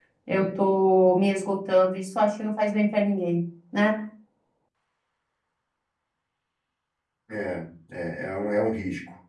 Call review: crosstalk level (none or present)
none